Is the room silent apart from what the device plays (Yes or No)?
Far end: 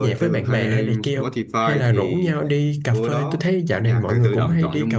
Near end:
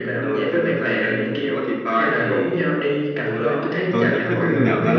No